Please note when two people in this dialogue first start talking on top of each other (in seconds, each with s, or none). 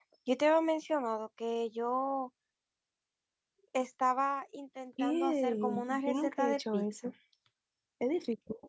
5.0 s